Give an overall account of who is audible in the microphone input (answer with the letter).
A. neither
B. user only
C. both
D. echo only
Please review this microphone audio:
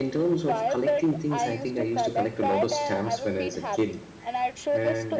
C